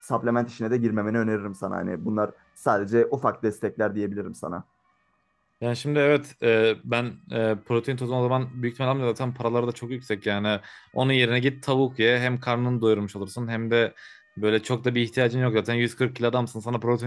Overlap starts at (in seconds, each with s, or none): none